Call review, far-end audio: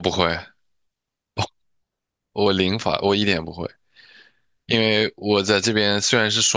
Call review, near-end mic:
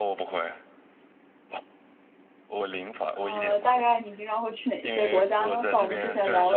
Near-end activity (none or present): present